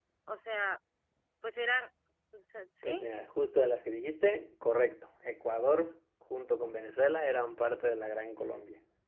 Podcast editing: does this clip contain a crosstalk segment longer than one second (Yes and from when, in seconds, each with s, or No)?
No